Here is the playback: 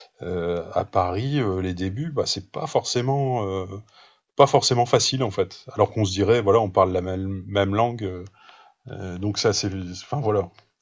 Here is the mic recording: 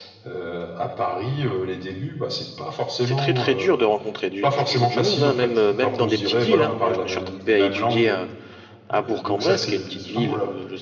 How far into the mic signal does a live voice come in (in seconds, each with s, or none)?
3.0 s